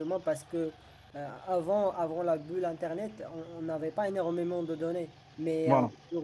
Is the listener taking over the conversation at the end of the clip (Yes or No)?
No